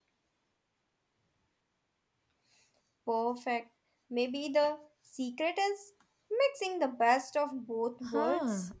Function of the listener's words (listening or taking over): taking over